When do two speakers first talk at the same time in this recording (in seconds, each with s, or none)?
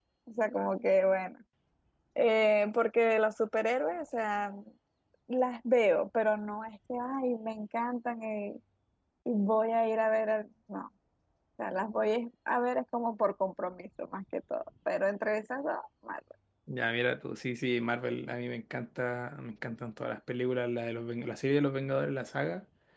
none